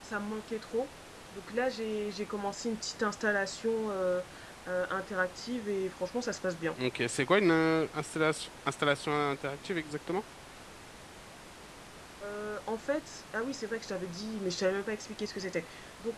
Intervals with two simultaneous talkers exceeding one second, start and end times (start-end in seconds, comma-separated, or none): none